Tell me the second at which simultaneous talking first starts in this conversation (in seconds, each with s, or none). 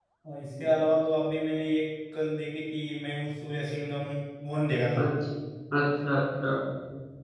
none